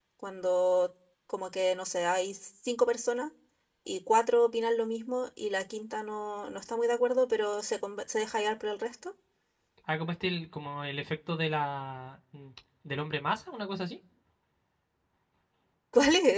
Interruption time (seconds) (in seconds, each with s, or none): none